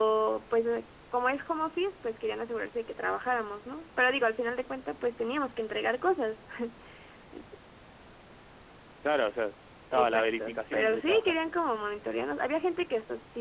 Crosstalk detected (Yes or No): Yes